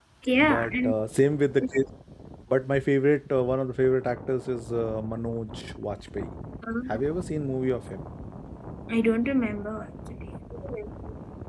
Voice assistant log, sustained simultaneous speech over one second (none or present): none